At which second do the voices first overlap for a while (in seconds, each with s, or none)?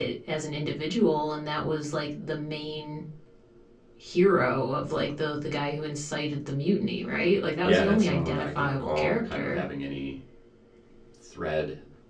7.6 s